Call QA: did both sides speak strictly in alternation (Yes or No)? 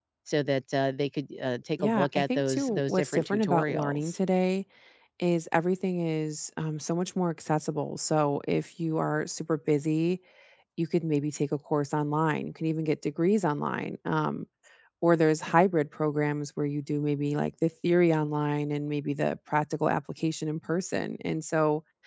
No